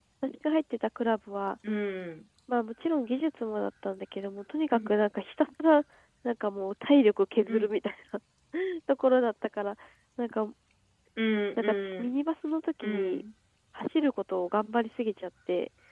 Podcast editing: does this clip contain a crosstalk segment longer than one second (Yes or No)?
No